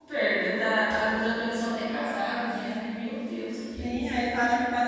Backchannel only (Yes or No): No